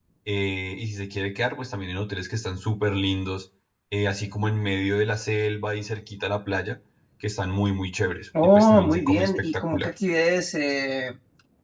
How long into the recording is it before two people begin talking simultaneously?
8 s

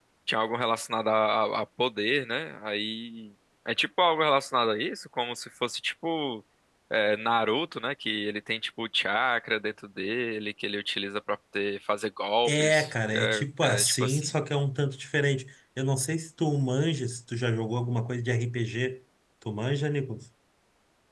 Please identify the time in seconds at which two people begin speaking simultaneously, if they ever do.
12 s

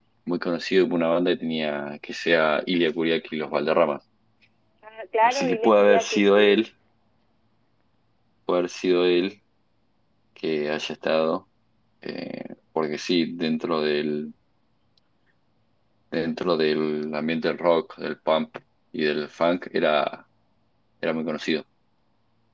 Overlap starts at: 5 s

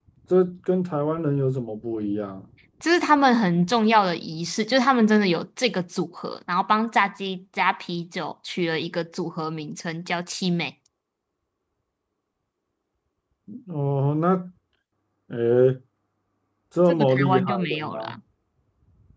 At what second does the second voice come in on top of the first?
17 s

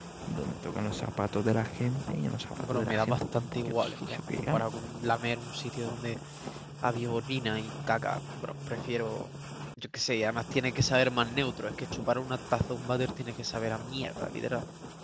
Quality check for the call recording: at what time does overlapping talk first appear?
3 s

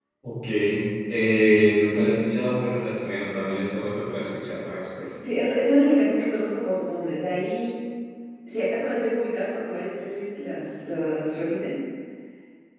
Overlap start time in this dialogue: none

